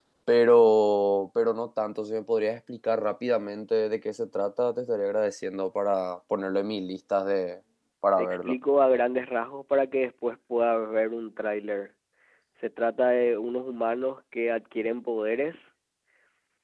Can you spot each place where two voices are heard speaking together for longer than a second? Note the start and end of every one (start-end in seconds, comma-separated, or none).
none